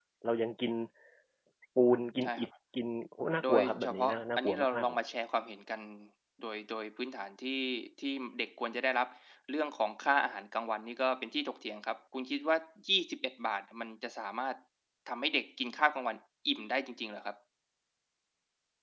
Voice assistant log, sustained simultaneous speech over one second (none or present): present